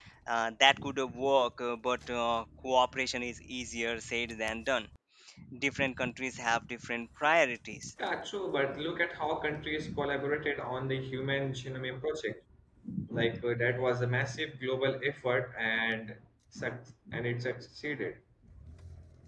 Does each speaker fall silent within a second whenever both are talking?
Yes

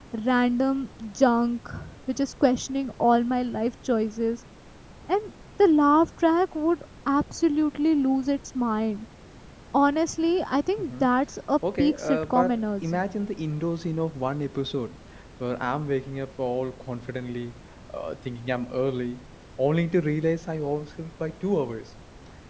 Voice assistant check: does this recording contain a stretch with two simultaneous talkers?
Yes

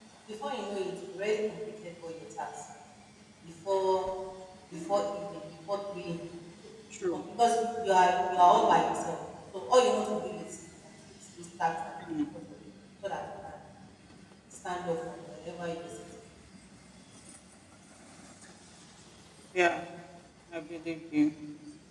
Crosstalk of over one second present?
No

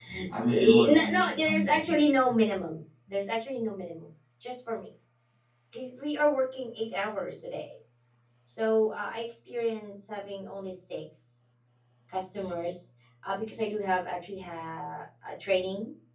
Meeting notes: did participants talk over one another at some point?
Yes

